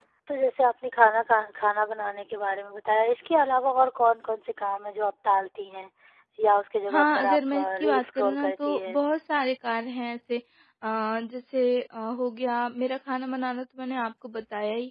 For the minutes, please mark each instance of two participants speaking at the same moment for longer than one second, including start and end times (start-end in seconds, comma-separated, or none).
6.9-9.0